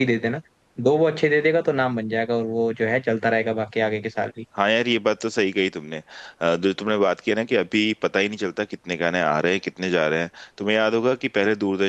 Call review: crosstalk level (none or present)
none